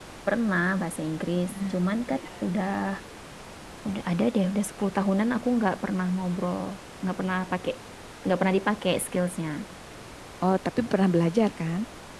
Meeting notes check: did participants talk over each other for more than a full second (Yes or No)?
No